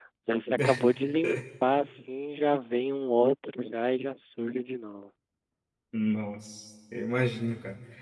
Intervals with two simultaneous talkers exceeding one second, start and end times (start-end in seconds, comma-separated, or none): none